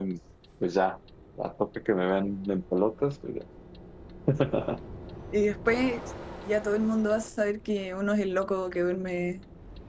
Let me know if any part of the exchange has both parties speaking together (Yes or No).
No